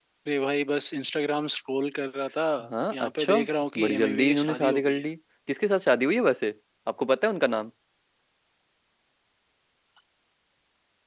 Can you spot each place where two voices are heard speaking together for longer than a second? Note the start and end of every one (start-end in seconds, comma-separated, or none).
3.8-5.0